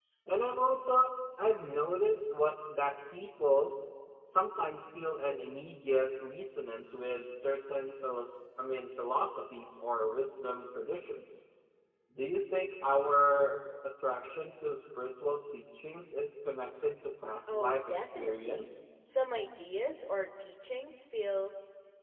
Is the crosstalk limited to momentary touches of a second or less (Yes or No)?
No